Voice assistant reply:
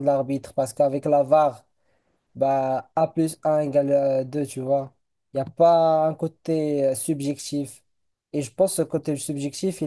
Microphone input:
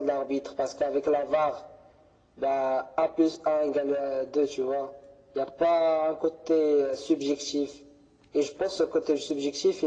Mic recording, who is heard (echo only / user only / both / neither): echo only